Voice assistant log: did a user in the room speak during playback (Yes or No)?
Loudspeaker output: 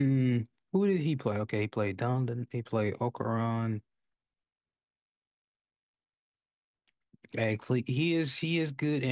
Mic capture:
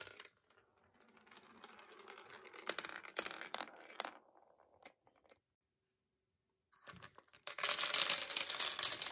No